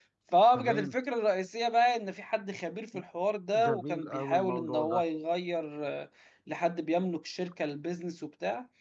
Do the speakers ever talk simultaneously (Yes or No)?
Yes